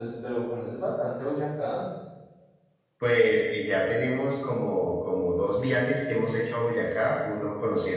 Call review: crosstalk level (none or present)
none